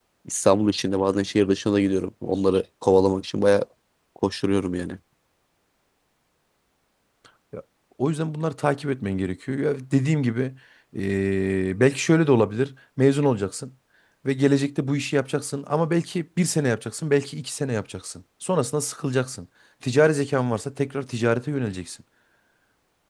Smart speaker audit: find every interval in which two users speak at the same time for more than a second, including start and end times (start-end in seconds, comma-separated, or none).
none